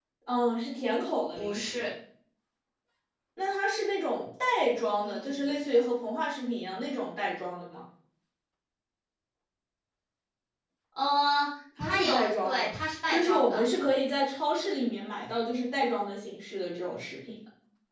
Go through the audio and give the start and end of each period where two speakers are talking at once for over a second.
11.8-13.6

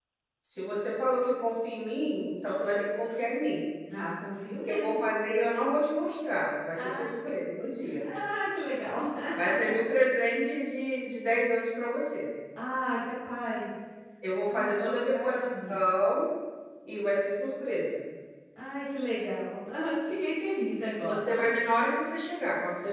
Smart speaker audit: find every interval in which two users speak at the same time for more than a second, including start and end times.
14.5-15.8

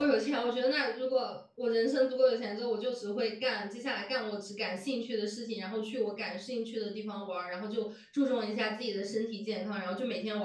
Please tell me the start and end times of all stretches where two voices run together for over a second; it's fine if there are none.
none

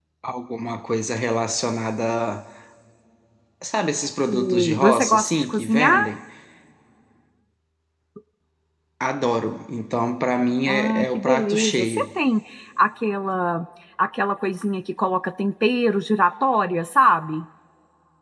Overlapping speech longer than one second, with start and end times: 4.3-6.0, 10.6-12.0

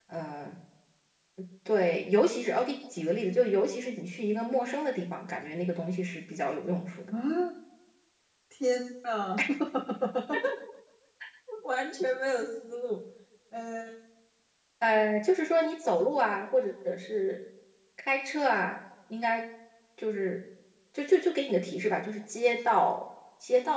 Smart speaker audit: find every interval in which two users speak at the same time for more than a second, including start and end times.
none

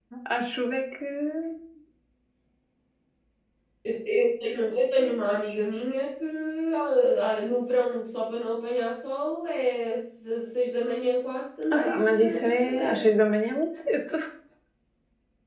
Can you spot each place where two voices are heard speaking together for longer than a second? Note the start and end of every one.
11.7-13.0

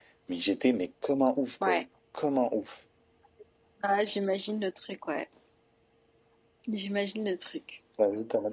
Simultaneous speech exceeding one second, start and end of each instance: none

